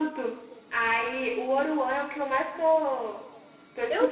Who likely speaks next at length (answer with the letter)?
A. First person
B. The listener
B